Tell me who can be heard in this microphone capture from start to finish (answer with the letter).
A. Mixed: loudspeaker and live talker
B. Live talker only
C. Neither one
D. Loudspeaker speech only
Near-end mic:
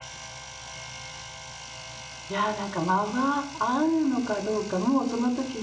B